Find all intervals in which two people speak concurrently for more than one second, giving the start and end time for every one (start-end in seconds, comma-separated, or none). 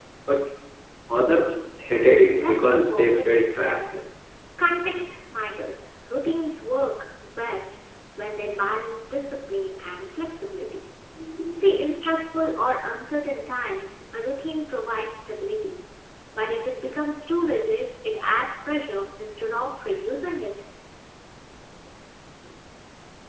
1.9-3.8